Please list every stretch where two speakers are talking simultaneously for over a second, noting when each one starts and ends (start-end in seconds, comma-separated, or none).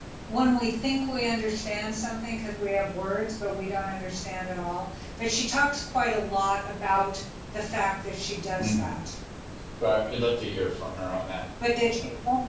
none